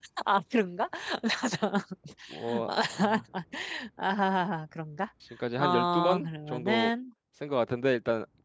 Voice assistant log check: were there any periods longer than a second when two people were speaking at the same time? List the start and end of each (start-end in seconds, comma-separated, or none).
5.6-6.9